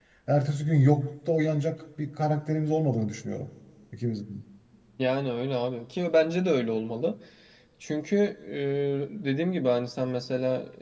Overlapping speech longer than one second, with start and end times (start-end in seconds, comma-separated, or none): none